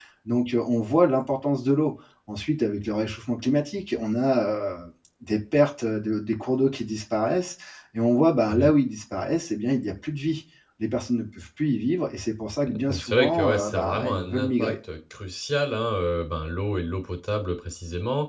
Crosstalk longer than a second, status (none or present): present